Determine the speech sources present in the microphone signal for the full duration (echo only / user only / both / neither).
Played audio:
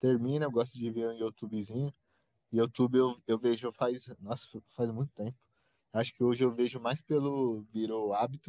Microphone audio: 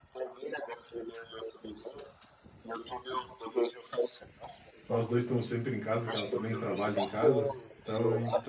both